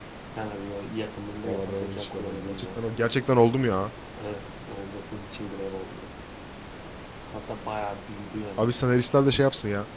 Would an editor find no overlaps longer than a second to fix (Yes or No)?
No